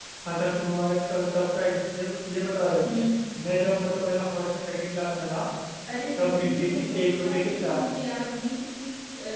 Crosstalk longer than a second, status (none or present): present